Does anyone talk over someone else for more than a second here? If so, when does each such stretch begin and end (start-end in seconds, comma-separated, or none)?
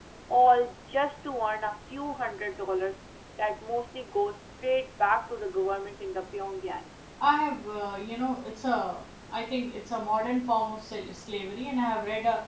none